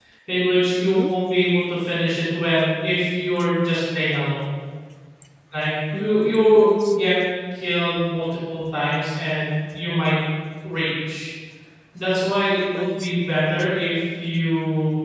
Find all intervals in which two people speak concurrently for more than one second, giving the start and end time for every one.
6.0-7.2

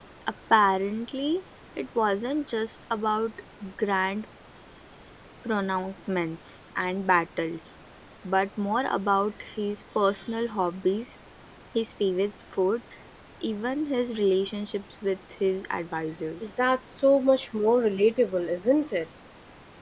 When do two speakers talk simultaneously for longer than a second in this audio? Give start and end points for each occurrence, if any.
none

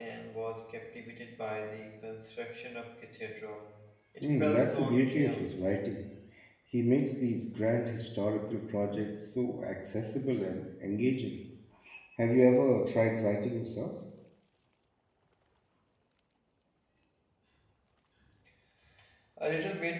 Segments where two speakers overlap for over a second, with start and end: 4.2-5.5

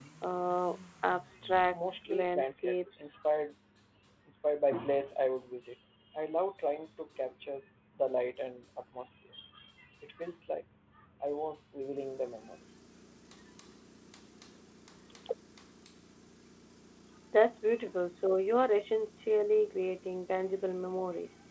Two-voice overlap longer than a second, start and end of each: 1.7-3.2

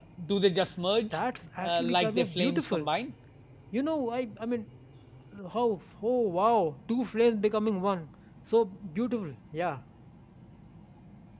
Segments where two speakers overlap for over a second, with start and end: 1.6-2.9

